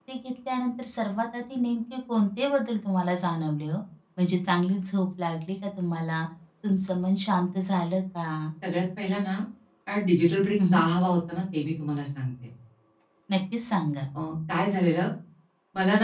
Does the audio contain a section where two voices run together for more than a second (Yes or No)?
No